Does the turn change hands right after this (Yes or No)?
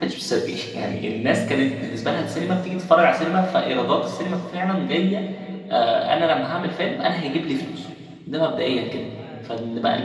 No